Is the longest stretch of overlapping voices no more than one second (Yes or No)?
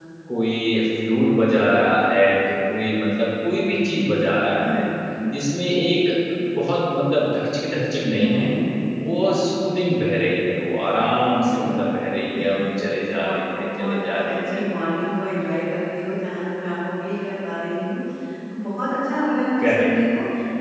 No